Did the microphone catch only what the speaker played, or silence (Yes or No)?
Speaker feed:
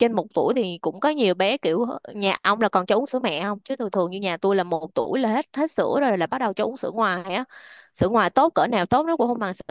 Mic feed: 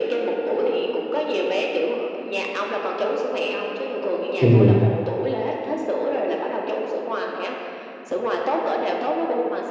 No